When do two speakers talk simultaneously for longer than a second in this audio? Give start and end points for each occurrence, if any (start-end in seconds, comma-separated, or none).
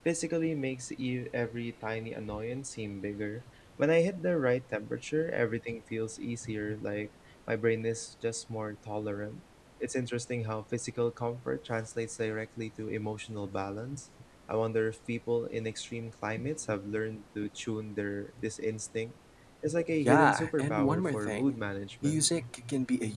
20.0-21.6